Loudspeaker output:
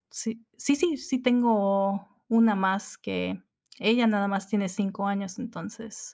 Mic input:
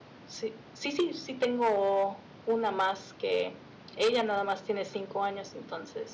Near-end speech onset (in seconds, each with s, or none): none